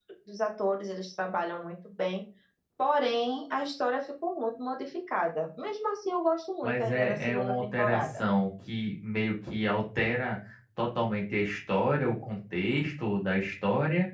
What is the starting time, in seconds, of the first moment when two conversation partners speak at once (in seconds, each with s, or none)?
6.6 s